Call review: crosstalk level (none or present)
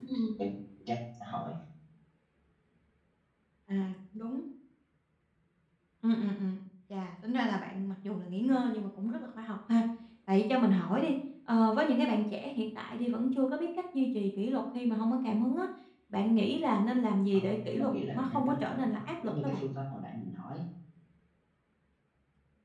present